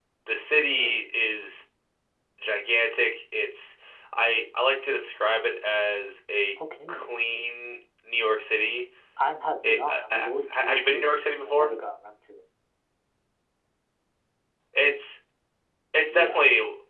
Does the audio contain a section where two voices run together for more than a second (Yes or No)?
Yes